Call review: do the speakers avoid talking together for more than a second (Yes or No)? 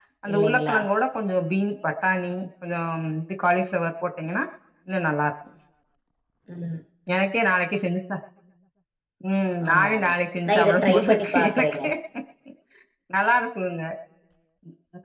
No